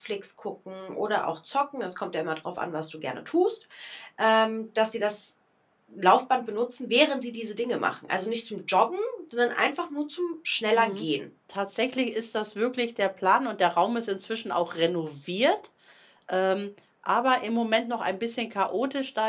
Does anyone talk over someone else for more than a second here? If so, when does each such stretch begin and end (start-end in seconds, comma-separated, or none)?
none